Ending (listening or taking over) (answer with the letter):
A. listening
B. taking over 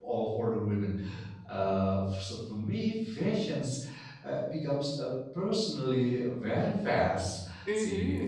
B